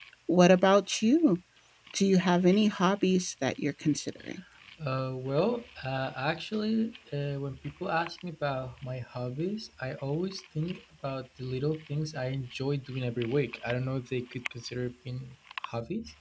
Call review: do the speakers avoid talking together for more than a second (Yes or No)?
Yes